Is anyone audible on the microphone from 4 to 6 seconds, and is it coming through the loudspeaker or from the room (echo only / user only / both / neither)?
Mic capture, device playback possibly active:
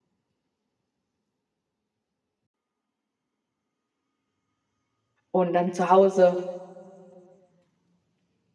user only